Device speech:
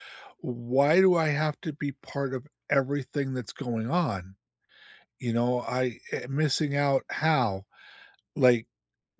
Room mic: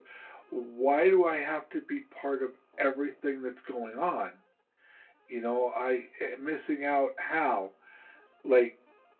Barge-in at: none

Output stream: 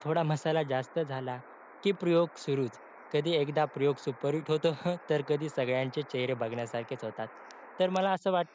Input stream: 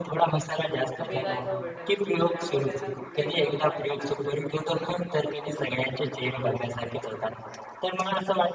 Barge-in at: 1 s

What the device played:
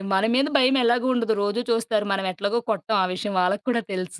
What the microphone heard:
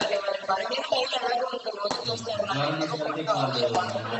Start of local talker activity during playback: 2 s

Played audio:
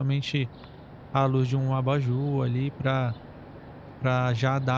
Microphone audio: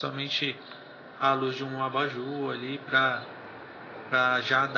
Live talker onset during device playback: none

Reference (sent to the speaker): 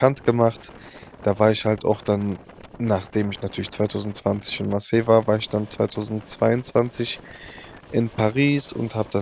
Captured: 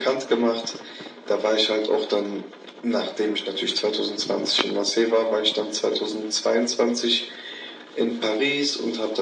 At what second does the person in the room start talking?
none

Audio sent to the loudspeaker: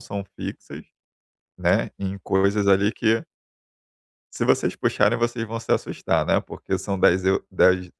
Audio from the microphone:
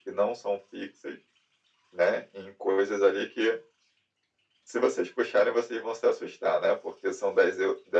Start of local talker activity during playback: none

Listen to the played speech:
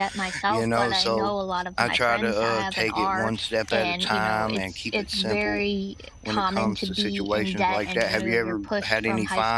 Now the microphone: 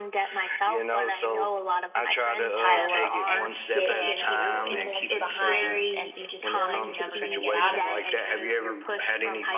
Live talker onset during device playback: 3 s

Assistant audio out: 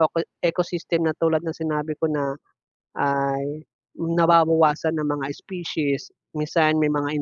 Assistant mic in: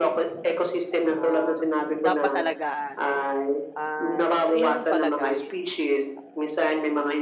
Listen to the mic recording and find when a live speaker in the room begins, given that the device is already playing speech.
1 s

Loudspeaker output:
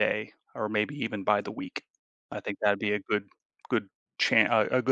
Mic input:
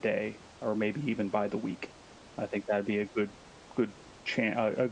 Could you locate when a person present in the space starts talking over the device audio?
none

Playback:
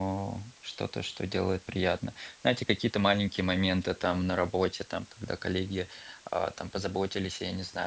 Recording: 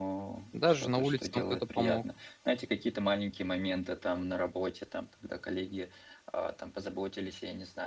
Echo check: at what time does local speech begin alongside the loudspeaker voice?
1 s

